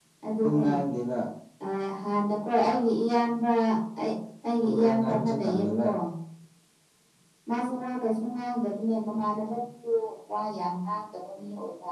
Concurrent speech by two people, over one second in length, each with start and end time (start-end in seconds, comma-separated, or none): 4.6-5.8